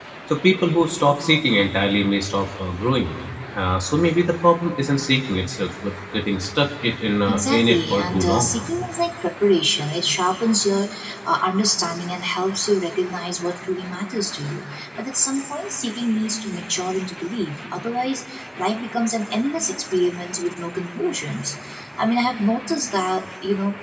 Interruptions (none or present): present